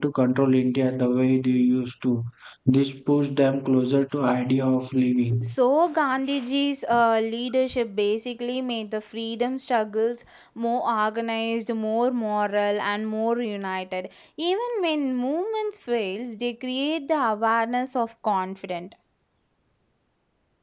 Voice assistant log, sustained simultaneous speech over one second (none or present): none